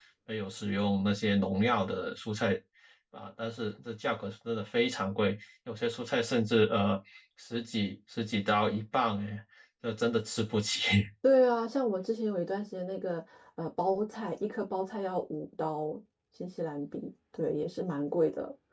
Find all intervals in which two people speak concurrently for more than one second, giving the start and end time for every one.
none

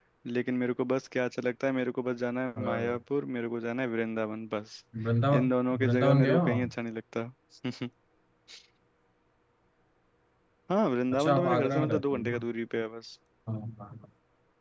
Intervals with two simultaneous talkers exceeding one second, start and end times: 5.3-6.7, 11.1-12.4

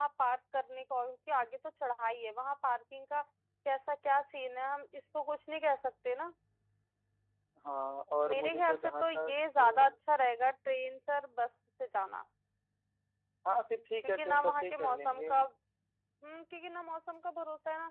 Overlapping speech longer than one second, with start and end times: 8.3-9.9, 14.0-15.3

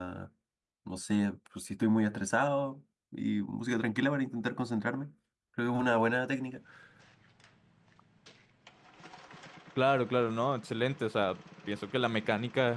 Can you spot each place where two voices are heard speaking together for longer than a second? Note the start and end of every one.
none

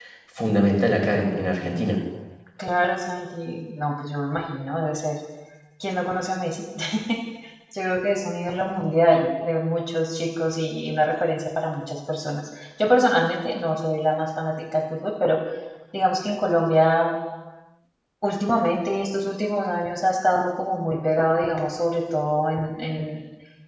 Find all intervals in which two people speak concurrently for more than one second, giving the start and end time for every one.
none

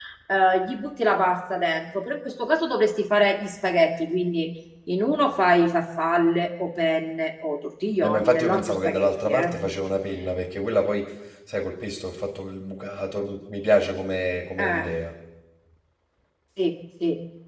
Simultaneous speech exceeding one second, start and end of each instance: 8.0-9.6

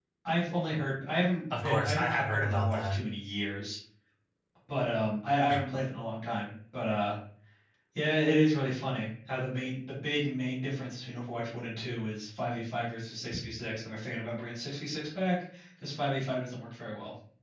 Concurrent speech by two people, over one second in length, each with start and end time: 1.5-3.0

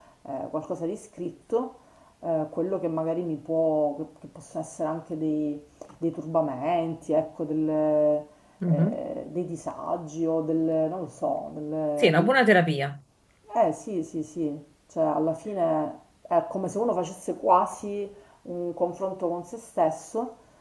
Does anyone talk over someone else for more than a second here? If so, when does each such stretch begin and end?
none

